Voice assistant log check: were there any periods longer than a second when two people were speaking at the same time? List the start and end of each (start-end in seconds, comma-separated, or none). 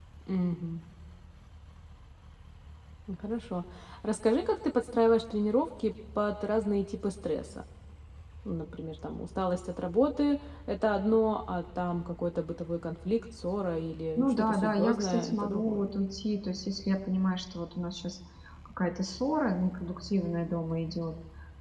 14.2-15.8